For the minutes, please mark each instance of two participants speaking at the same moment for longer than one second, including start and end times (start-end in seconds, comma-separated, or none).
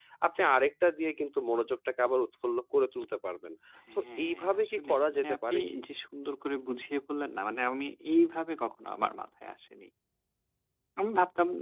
4.0-5.8